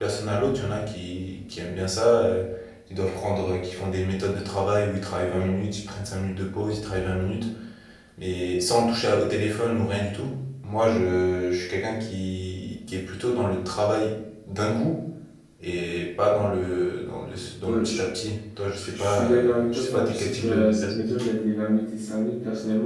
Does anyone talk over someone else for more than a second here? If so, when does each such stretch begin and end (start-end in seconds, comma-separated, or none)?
18.8-21.1